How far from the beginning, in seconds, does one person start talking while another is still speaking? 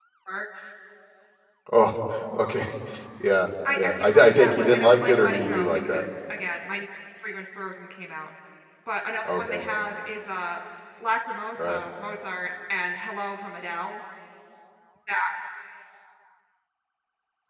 3.8 s

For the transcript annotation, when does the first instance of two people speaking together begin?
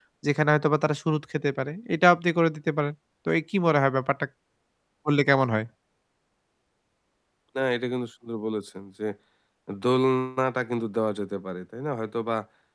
none

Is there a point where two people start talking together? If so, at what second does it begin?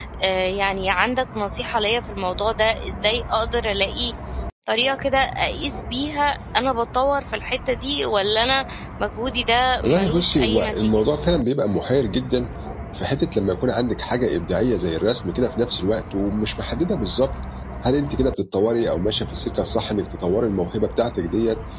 9.8 s

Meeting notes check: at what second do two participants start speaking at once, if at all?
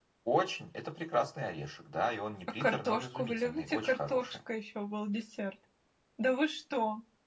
2.6 s

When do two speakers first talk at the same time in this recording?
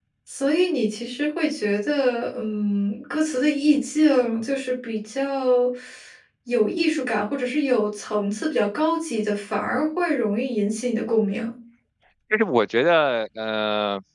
none

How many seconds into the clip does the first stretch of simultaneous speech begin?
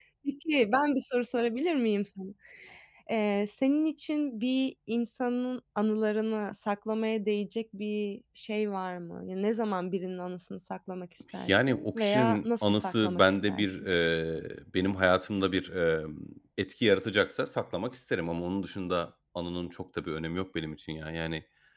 11.4 s

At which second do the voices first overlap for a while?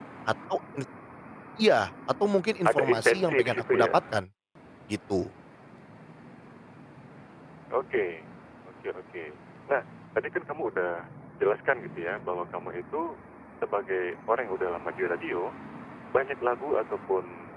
2.6 s

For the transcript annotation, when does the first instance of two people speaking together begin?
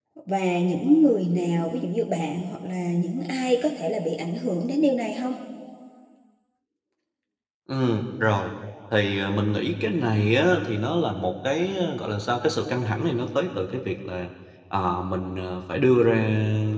none

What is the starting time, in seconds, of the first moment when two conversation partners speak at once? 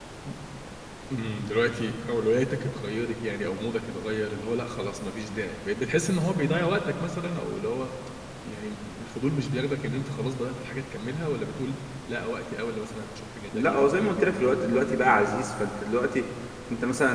13.5 s

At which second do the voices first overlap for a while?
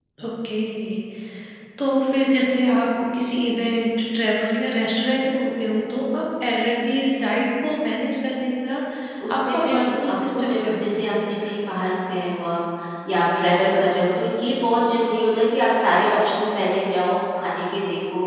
9.4 s

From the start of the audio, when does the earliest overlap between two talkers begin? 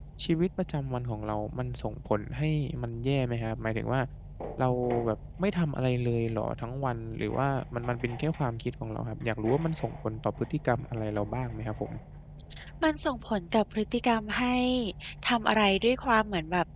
none

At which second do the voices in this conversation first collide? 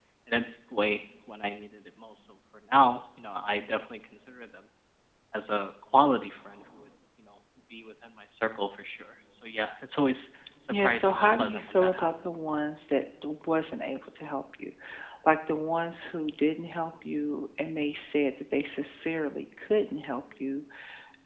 10.7 s

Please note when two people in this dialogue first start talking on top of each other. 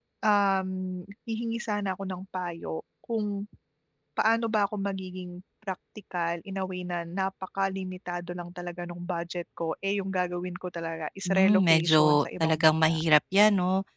11.2 s

